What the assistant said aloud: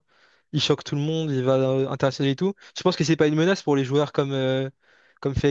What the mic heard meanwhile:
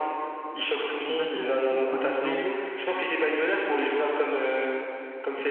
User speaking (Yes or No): Yes